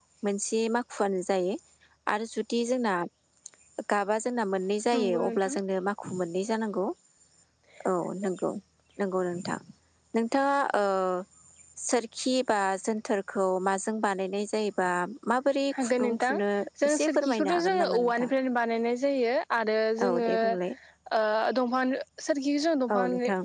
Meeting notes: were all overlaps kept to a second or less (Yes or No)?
No